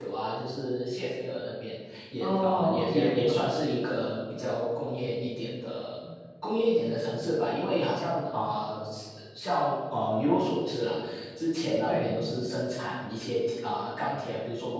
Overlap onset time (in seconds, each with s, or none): 2.2 s